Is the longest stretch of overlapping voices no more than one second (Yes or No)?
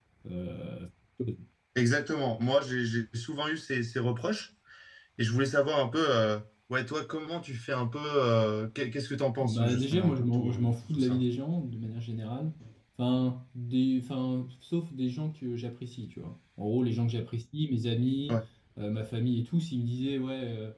No